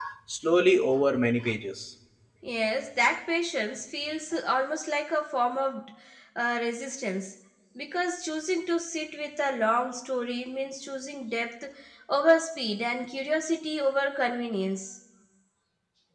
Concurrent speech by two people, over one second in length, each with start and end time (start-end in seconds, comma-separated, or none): none